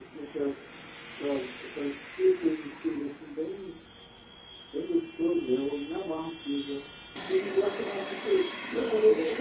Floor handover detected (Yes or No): Yes